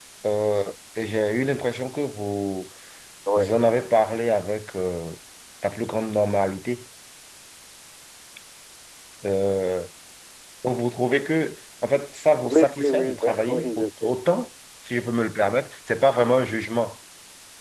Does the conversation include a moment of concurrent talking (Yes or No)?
Yes